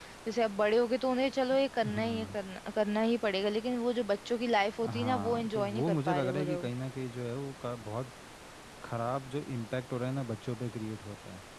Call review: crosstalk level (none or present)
present